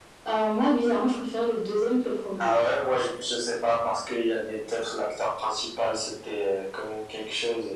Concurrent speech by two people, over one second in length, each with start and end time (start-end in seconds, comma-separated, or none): none